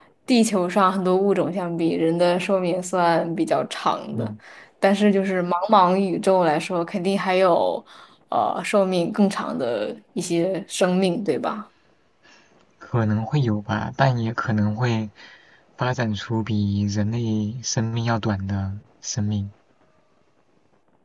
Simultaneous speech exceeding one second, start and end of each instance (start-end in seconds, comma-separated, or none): none